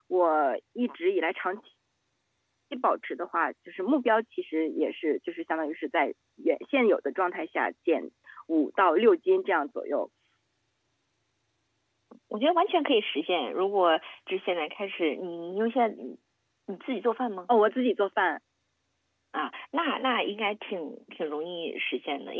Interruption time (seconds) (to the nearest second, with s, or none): none